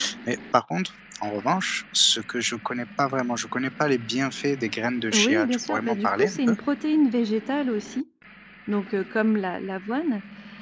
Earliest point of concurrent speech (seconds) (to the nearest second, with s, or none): 5 s